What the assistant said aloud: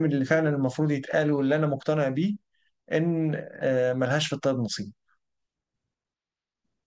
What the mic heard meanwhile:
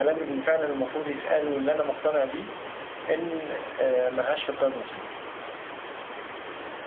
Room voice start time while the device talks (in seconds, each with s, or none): none